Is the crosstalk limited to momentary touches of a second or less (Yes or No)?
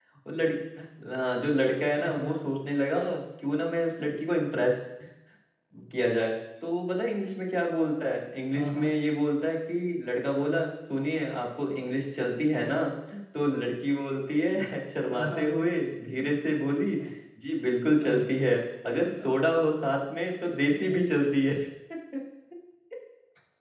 Yes